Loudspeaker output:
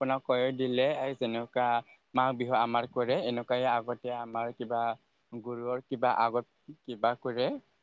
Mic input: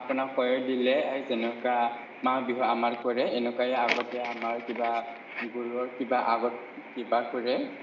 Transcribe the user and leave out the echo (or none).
none